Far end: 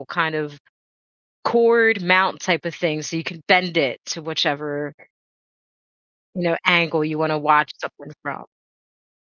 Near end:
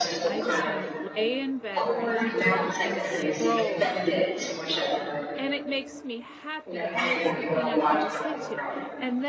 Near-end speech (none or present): present